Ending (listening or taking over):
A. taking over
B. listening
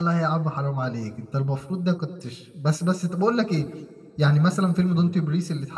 B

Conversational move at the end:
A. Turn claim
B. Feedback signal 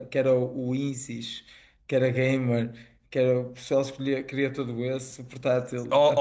A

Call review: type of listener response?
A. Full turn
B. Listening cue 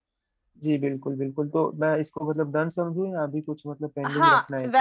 A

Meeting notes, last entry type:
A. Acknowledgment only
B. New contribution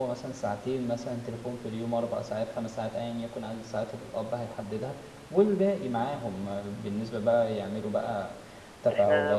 A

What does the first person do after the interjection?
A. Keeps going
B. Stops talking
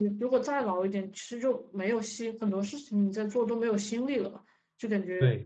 A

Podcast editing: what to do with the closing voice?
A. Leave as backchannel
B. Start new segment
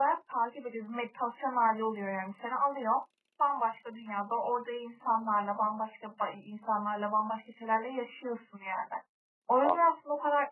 A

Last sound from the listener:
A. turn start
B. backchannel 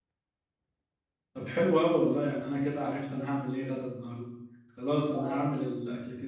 B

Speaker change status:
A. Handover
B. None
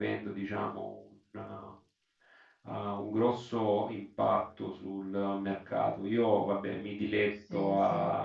B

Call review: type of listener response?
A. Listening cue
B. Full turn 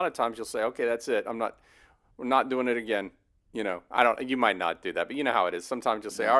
A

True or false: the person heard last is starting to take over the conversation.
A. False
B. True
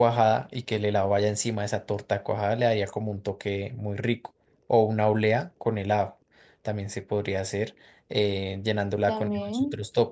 A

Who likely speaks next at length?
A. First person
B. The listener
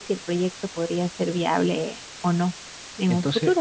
B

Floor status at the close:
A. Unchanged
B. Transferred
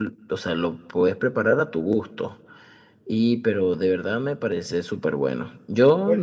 A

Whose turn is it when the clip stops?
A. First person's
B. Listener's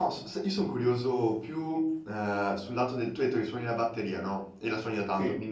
A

